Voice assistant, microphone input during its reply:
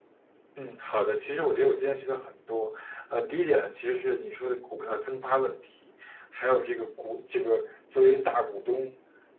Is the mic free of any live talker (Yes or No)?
No